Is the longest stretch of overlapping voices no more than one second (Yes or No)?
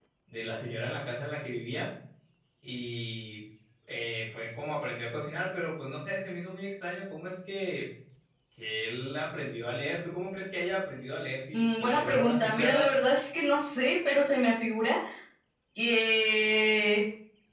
No